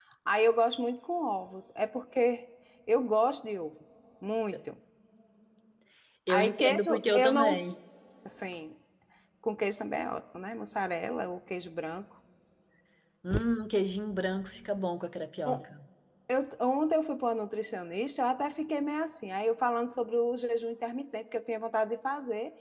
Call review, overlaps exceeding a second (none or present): present